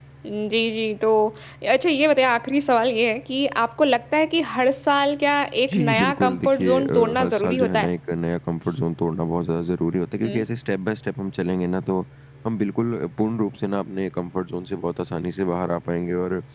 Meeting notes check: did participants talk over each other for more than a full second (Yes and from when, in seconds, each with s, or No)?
Yes, from 5.7 s